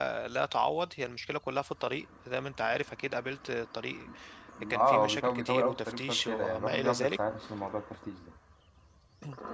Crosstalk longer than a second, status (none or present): present